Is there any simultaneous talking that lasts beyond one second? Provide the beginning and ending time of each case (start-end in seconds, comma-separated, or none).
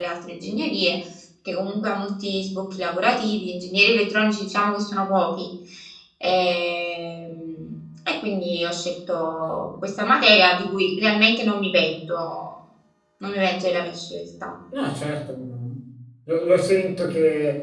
none